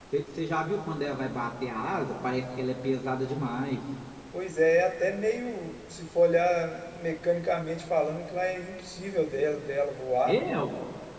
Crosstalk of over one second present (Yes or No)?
No